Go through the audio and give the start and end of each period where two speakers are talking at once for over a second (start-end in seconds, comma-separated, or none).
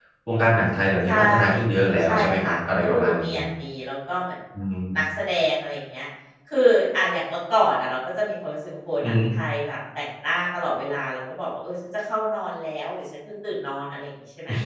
2.0-3.3